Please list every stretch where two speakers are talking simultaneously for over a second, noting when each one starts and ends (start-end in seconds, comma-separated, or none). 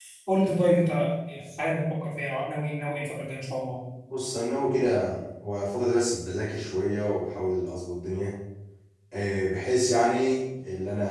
none